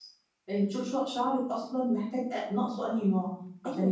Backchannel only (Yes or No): No